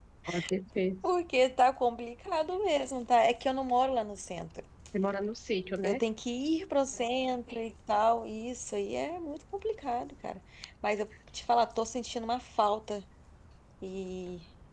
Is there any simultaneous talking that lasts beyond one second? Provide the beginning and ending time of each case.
none

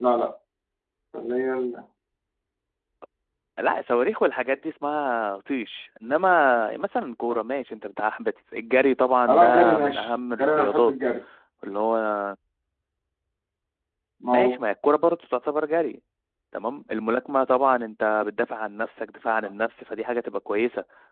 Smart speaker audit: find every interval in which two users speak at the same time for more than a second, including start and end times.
9.3-10.9

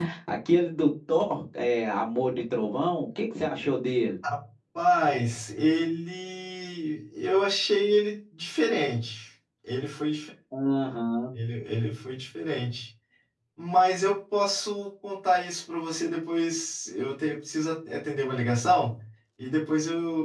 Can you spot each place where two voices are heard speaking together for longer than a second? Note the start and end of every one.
none

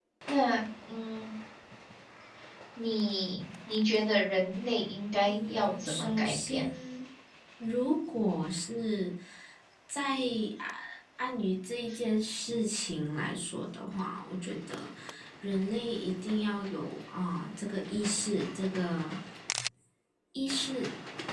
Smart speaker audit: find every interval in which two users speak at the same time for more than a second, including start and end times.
5.2-6.7

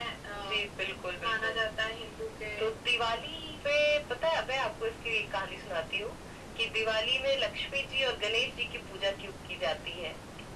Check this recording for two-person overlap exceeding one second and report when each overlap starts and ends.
none

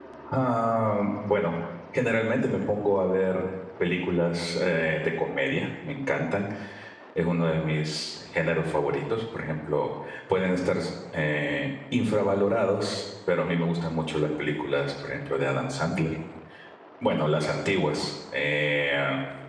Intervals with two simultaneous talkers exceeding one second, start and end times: none

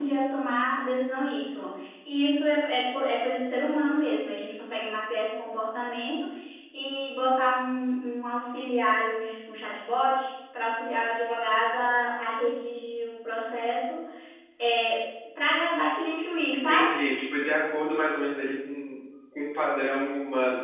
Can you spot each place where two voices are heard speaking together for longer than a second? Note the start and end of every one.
none

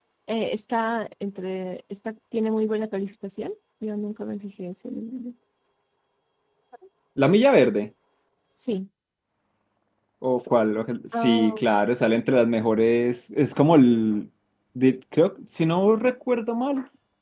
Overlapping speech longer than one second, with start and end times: none

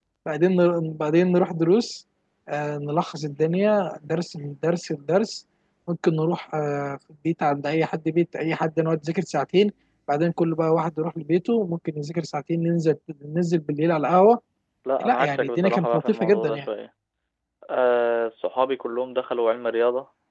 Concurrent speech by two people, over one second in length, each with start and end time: 15.0-16.6

